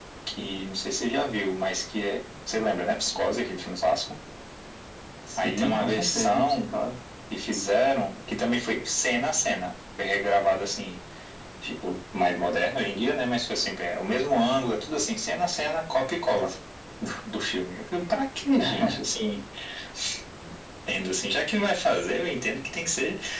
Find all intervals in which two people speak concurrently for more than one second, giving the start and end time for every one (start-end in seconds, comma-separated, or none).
5.4-6.6